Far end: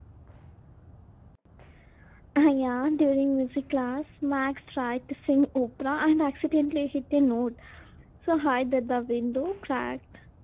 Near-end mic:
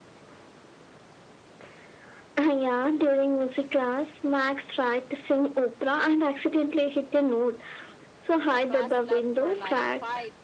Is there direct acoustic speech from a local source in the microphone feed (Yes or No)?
Yes